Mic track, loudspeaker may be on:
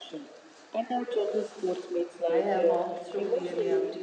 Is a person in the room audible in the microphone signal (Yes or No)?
Yes